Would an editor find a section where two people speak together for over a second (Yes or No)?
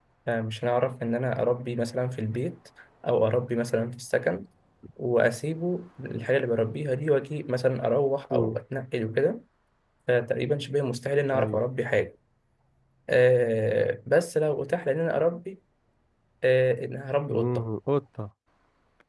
No